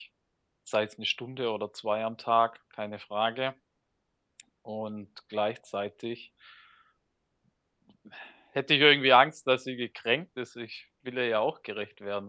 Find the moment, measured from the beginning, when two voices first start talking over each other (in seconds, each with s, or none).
none